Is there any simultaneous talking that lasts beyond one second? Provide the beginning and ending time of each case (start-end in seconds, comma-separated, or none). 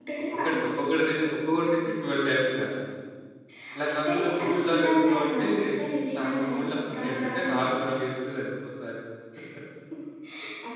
3.9-5.5, 6.2-7.6